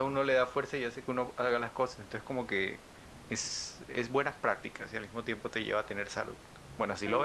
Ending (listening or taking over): taking over